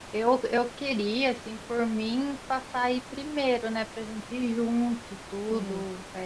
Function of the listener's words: listening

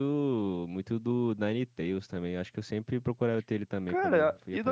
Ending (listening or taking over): taking over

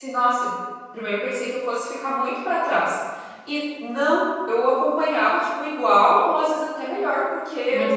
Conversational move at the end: listening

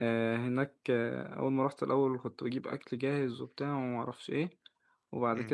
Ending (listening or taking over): listening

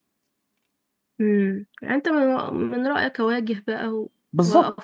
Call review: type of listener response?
taking over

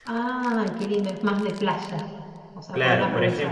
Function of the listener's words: taking over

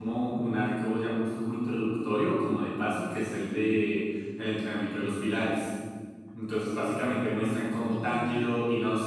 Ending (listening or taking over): listening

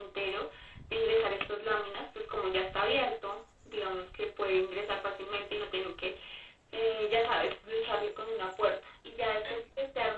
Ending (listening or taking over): listening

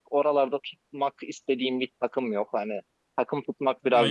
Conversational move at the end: taking over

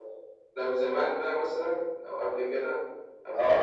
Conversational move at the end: taking over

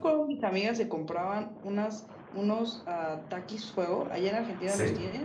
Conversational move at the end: taking over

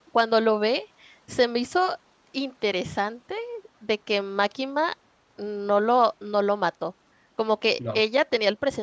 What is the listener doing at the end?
listening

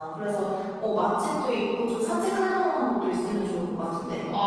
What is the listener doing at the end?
taking over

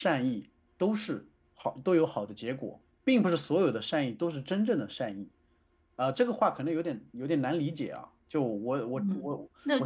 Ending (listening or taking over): taking over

